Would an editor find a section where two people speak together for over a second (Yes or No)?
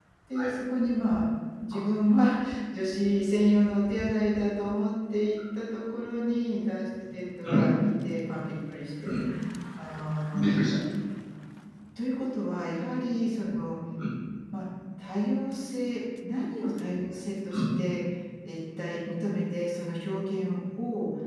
No